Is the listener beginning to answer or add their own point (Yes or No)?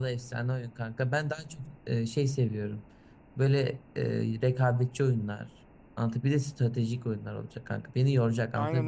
Yes